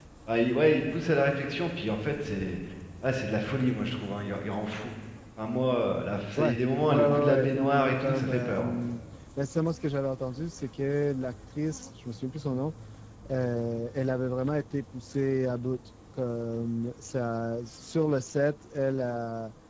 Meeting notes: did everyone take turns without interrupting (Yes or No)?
No